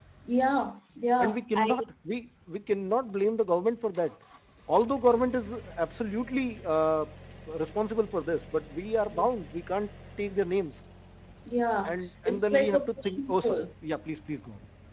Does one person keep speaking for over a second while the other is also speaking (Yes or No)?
Yes